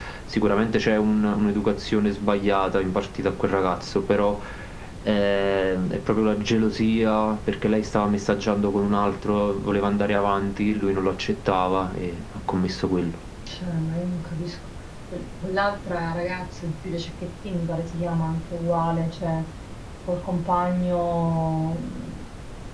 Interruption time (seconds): none

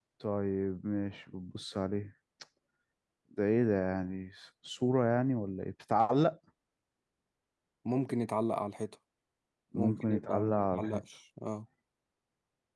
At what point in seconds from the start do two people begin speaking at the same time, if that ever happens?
9.8 s

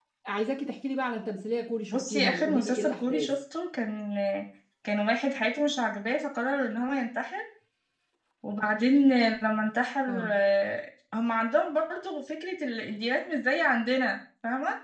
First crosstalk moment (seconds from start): 1.9 s

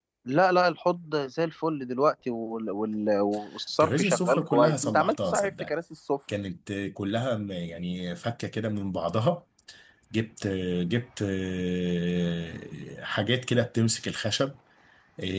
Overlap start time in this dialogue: 3.8 s

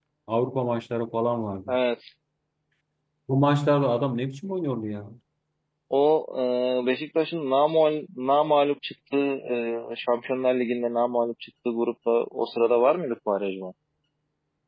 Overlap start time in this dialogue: none

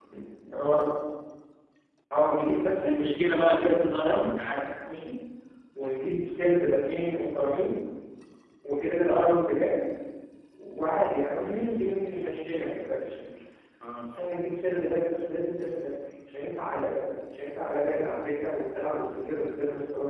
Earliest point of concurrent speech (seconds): 2.5 s

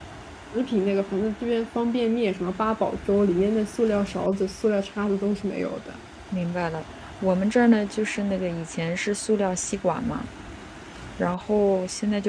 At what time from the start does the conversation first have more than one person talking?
none

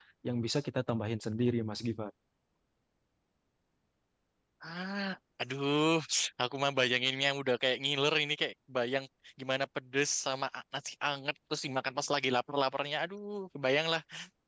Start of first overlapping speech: none

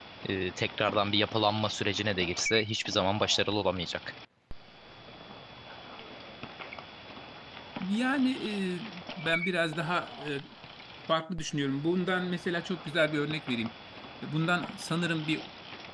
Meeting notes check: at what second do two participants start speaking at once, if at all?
none

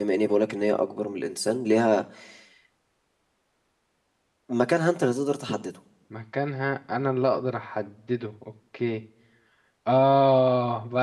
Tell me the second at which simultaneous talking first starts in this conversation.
none

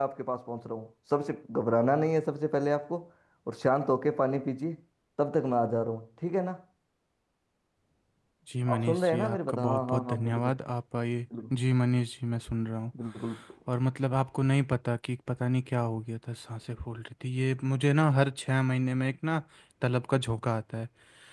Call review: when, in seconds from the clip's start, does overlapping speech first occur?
8.7 s

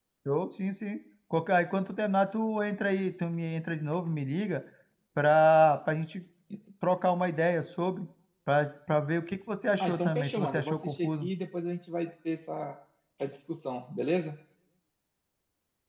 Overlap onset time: 9.8 s

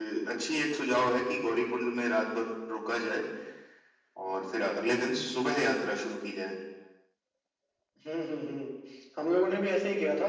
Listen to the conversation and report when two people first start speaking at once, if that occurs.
none

